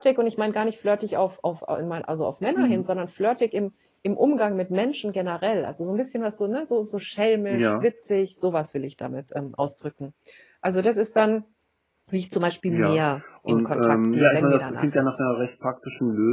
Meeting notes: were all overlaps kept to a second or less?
No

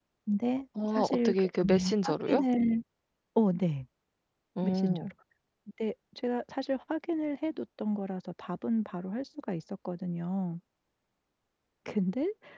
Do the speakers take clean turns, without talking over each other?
No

